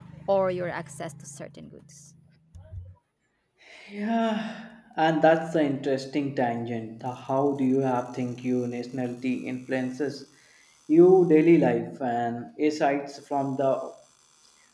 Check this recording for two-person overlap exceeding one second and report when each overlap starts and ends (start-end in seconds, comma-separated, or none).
none